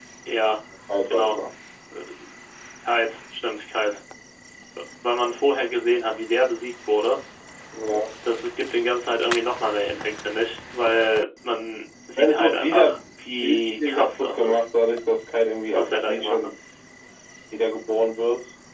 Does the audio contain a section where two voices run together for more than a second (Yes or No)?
Yes